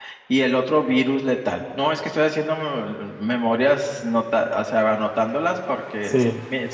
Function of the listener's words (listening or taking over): taking over